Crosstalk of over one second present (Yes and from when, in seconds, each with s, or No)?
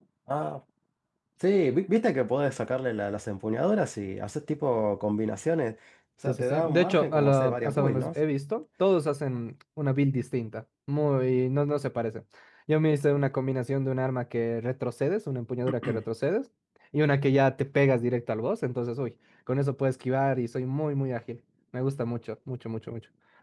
Yes, from 6.3 s